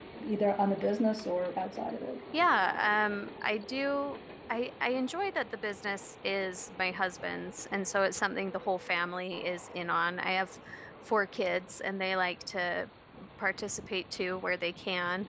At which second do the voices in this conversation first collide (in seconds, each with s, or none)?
none